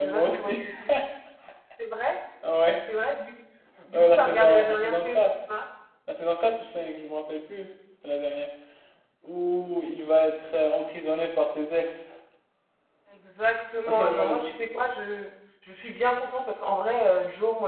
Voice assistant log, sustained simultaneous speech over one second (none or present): present